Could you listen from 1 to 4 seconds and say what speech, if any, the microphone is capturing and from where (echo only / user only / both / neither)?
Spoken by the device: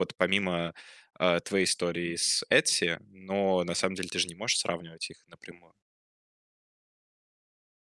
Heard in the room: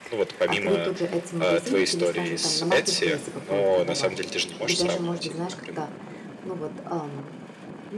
both